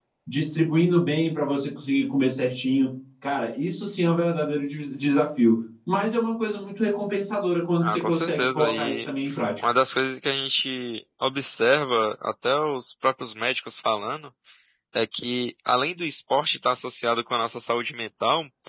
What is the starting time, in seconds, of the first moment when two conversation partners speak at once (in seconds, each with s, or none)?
7.8 s